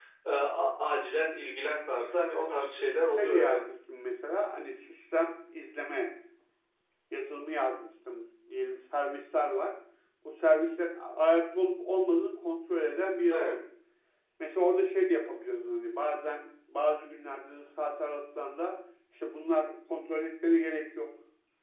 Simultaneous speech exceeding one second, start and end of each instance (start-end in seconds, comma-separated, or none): 2.1-3.6